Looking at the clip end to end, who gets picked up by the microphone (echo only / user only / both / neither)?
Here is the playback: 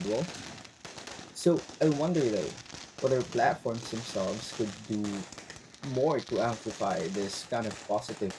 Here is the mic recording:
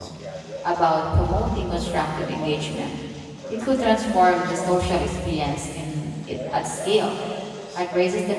both